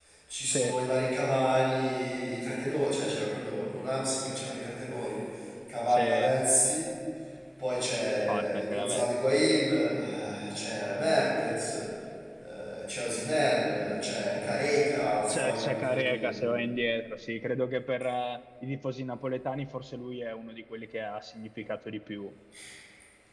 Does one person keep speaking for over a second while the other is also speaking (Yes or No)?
Yes